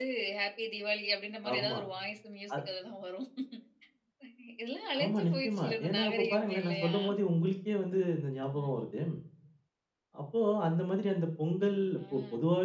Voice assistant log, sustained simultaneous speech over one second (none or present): present